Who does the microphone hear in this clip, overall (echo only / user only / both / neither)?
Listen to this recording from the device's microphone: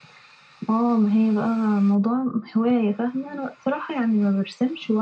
echo only